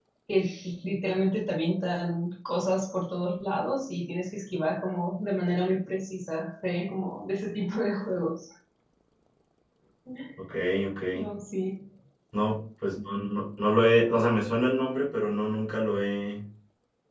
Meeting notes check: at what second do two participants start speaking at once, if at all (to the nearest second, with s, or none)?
none